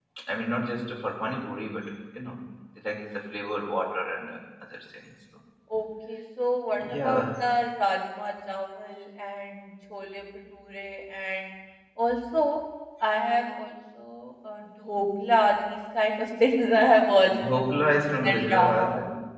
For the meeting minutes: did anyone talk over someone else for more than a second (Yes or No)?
Yes